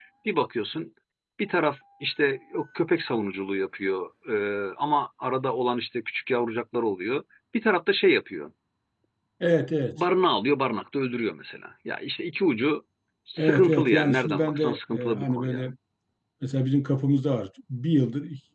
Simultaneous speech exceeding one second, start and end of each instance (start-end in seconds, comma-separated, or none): 13.4-15.6